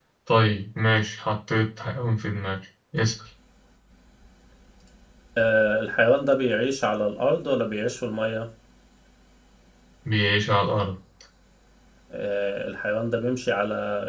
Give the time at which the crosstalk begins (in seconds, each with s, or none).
none